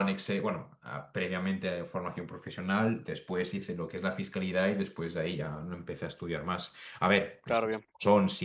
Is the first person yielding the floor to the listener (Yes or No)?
No